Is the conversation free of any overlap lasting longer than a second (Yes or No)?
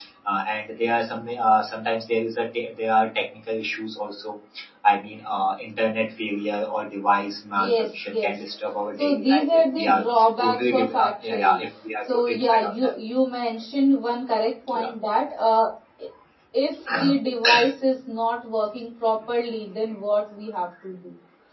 No